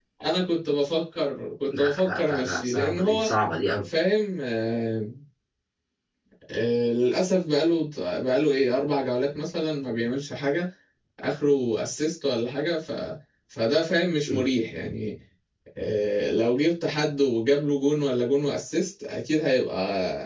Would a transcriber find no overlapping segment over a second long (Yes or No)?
No